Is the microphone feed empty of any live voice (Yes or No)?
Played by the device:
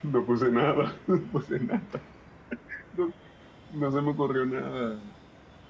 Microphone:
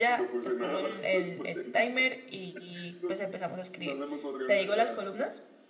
No